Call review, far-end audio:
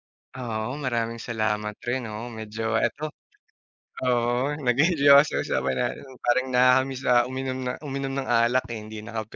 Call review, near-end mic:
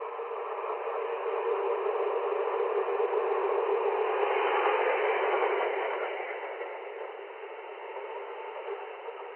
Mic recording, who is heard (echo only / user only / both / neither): neither